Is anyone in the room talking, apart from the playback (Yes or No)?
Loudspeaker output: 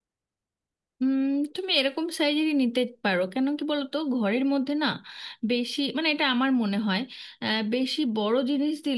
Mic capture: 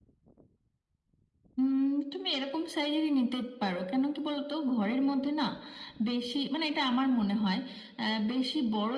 No